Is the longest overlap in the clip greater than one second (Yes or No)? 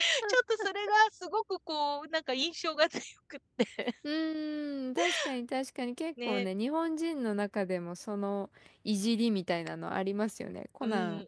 No